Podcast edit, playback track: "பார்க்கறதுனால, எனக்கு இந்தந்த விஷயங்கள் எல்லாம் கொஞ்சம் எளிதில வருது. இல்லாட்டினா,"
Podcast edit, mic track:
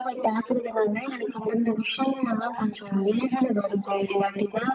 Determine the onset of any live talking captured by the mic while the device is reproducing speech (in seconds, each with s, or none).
none